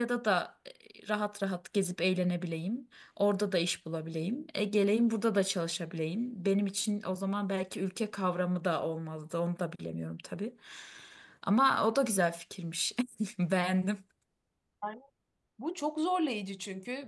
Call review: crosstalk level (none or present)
none